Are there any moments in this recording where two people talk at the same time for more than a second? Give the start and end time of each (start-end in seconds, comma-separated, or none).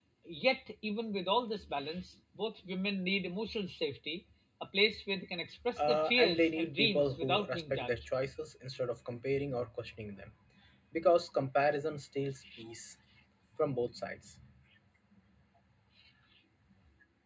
5.8-8.0